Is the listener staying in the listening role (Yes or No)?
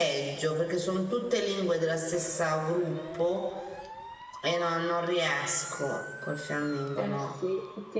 No